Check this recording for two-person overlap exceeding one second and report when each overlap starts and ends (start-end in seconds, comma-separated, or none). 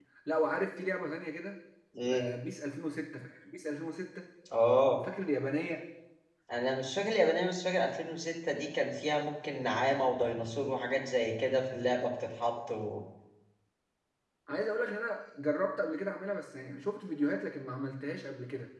none